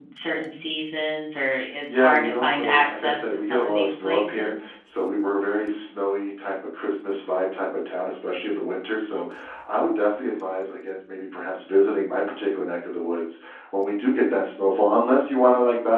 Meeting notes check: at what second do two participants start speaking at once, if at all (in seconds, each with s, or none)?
1.9 s